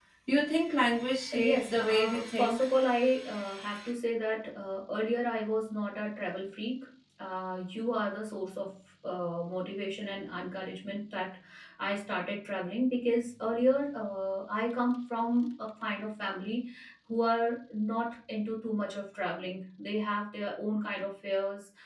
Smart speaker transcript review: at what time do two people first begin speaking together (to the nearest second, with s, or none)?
1 s